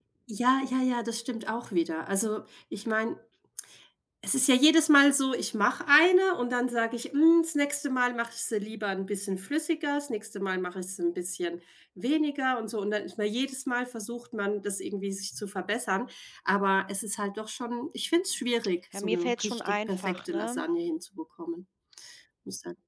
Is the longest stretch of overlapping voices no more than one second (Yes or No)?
No